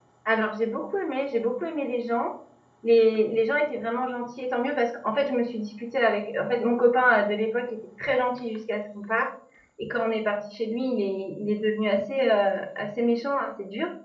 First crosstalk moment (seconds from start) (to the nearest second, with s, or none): none